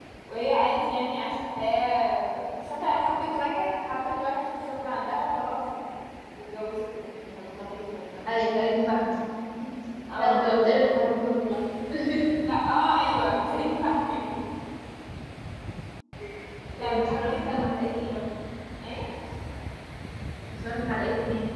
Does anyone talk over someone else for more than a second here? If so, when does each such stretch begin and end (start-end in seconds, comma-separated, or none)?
16.8-18.1